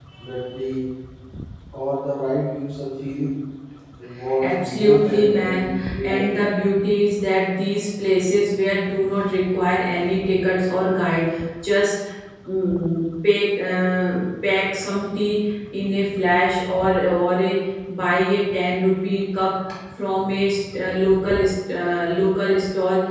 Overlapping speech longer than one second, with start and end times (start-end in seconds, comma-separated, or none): 4.4-6.6